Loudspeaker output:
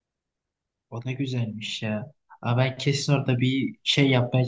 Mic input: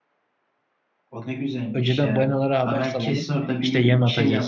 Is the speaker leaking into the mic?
Yes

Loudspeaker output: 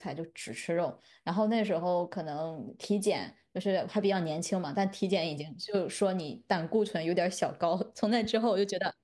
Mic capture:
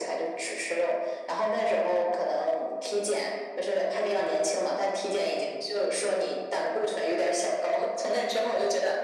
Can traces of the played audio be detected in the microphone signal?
Yes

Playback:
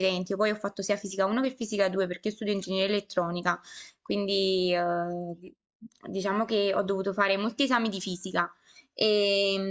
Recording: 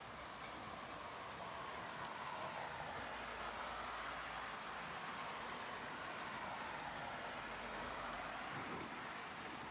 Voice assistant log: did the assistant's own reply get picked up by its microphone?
No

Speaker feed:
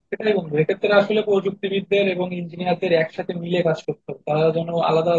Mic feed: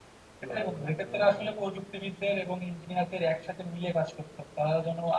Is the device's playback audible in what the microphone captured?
Yes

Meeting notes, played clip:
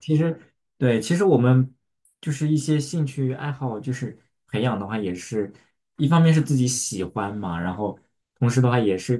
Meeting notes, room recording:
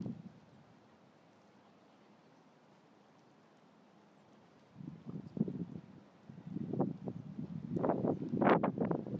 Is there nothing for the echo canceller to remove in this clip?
Yes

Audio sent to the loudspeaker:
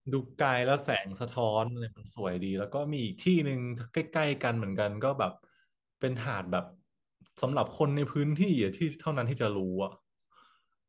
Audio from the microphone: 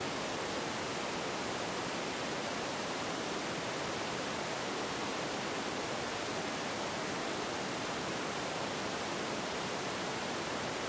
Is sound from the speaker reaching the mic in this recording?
No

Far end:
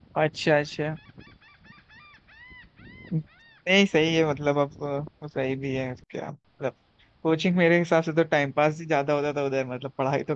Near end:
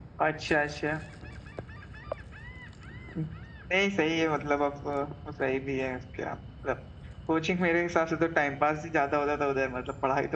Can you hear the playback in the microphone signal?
Yes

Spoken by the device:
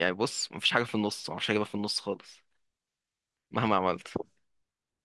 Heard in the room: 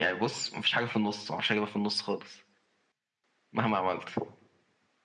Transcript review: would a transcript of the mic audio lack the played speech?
No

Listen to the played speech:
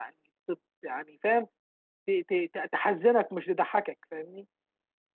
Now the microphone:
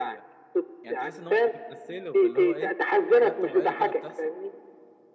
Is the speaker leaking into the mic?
Yes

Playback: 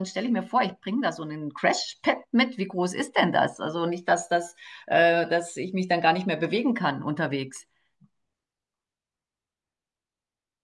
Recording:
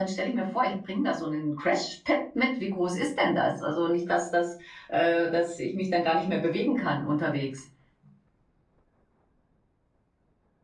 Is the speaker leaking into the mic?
Yes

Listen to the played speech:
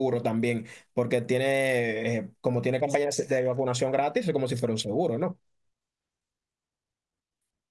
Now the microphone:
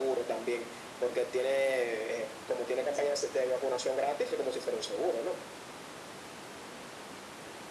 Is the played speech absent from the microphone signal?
No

